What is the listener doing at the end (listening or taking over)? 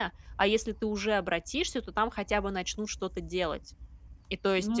listening